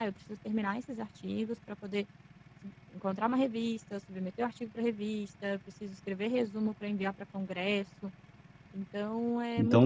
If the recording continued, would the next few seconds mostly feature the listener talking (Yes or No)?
Yes